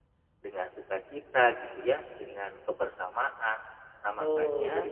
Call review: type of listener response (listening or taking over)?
taking over